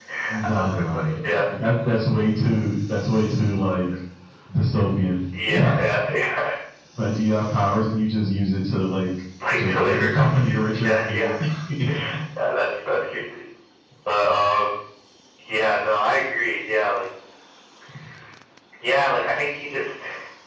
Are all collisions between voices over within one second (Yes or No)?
No